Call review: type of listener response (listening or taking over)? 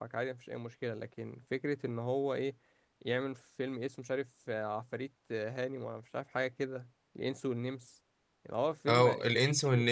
taking over